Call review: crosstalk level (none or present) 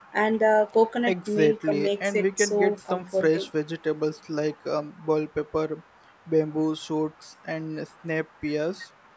present